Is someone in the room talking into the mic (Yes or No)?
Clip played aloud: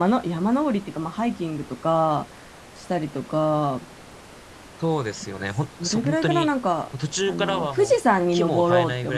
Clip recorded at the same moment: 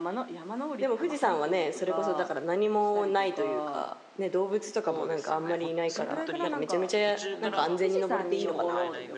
Yes